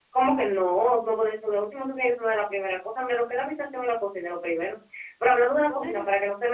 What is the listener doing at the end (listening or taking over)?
listening